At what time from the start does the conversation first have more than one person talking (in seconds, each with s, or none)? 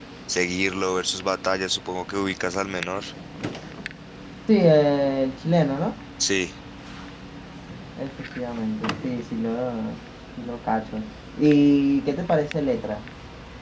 none